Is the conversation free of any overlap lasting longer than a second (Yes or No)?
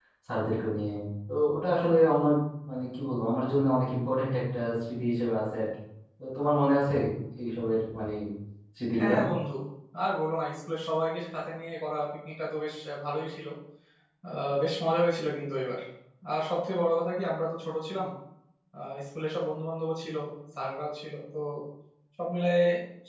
Yes